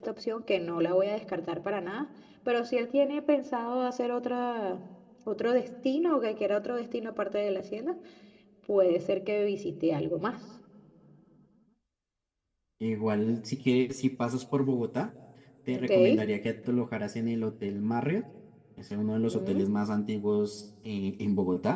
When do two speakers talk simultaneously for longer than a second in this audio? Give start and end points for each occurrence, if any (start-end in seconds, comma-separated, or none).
none